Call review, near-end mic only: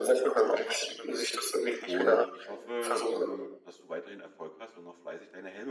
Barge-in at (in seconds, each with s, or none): 1.8 s